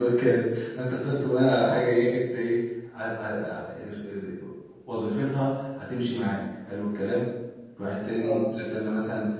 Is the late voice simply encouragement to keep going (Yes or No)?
Yes